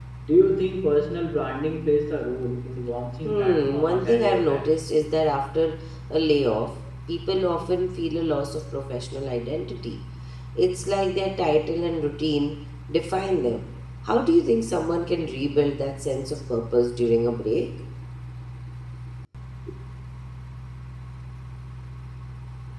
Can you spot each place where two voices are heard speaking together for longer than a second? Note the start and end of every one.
3.2-4.7

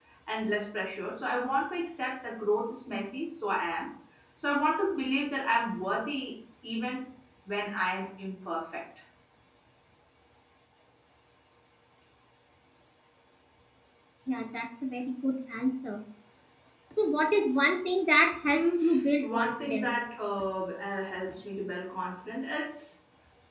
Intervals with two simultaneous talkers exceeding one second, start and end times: 18.5-19.9

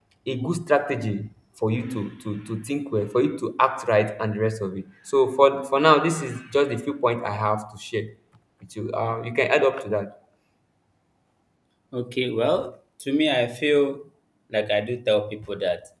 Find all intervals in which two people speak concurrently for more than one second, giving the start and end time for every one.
none

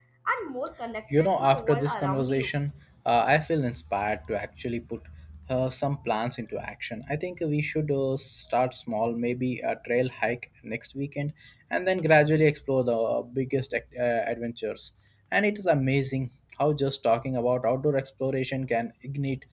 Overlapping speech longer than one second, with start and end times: 1.2-2.5

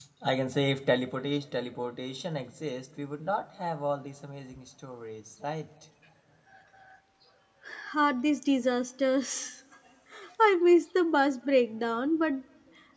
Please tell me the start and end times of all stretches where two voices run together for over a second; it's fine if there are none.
none

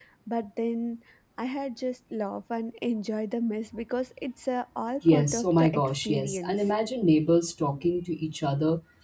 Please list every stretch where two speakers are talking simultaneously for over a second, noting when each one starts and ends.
5.1-6.7

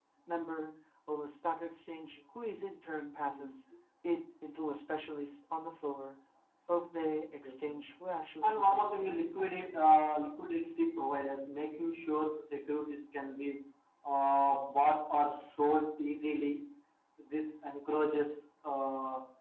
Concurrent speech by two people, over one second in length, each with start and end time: 8.4-9.7

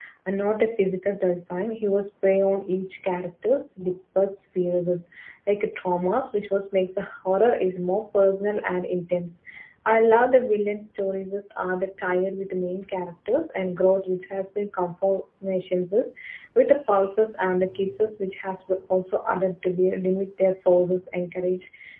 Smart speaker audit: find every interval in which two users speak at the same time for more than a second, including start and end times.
none

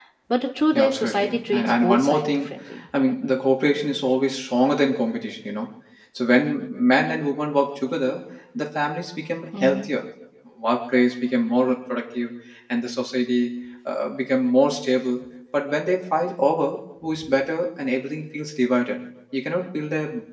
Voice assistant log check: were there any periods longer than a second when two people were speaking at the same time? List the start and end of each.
0.7-2.5

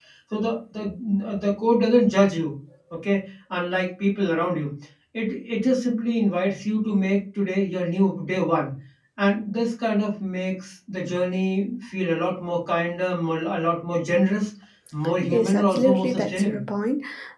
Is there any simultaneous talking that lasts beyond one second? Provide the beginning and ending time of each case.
15.3-16.6

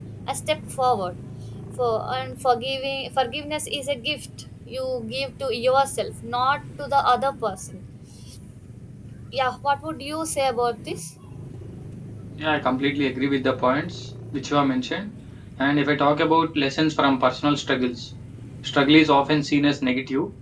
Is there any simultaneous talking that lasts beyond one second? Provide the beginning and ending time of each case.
none

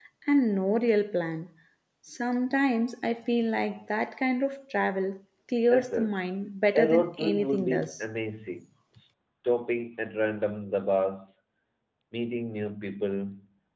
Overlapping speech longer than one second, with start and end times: 6.8-8.0

